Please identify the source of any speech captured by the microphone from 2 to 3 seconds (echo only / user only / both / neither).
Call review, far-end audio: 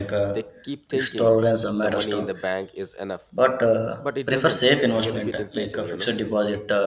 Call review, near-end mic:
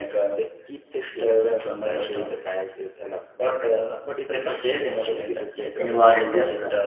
echo only